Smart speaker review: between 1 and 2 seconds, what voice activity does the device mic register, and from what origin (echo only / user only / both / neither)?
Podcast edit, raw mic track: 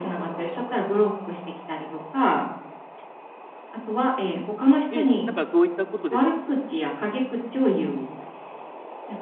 echo only